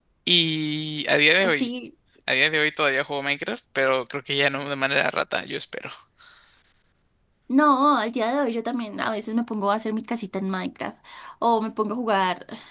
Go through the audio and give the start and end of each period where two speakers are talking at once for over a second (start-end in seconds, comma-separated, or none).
none